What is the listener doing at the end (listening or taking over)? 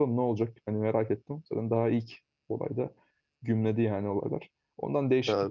listening